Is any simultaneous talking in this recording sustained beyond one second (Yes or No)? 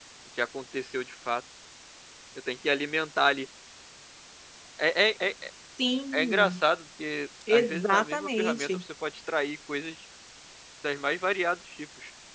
Yes